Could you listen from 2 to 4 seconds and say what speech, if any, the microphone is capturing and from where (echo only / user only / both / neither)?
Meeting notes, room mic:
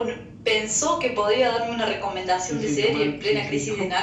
both